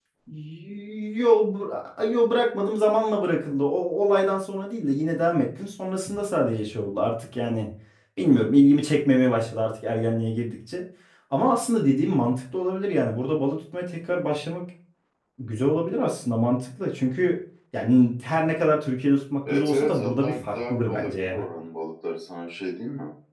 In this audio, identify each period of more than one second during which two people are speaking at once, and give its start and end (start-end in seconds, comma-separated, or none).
19.5-21.4